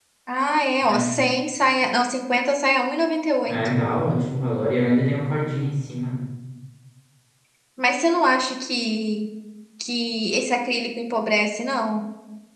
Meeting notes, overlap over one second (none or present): none